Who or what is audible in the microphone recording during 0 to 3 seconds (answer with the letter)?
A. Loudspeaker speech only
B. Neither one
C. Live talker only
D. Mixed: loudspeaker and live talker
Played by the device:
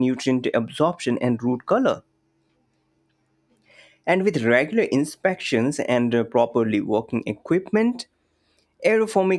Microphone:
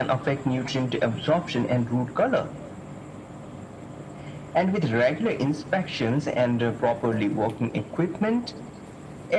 A